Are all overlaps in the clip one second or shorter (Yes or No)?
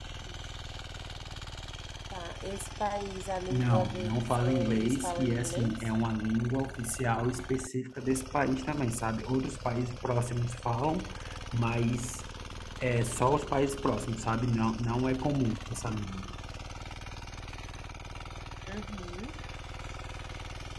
No